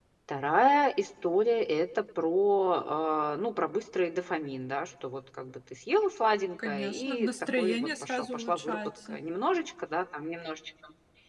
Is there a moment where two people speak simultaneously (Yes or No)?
Yes